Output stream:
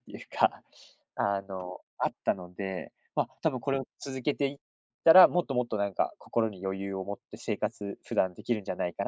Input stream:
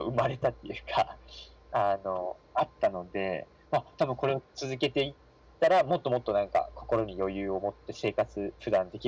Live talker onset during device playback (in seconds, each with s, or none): none